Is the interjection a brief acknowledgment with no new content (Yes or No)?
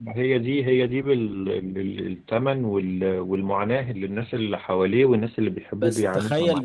No